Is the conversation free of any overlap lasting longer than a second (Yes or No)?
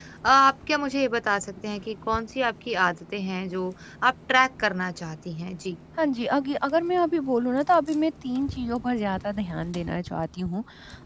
Yes